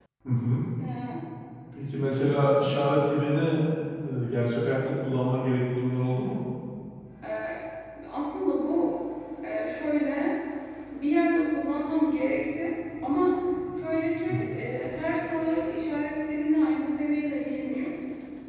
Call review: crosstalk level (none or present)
none